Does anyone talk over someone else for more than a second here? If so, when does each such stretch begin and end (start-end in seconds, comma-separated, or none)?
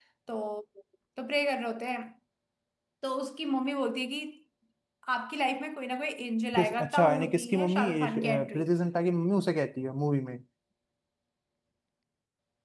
6.5-8.6